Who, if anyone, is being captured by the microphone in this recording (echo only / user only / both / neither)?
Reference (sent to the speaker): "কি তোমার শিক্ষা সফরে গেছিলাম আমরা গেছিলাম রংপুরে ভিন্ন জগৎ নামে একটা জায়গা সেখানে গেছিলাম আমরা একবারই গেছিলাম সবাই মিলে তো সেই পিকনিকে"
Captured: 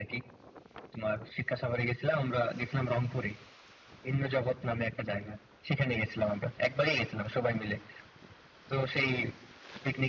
echo only